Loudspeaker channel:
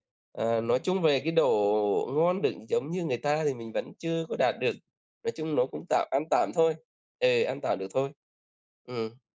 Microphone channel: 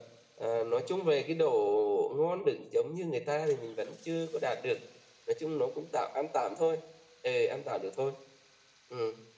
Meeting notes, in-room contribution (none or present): none